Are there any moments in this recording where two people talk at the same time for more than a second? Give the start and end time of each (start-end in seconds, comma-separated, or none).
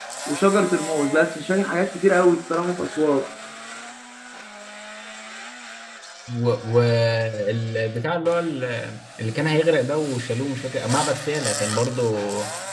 none